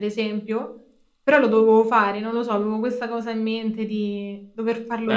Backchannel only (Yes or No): No